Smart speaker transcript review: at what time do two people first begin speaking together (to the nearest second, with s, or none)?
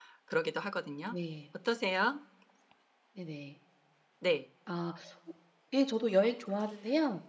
none